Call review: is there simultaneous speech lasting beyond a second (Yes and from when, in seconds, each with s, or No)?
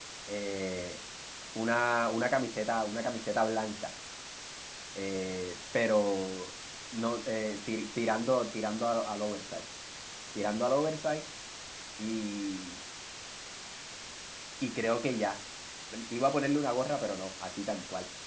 No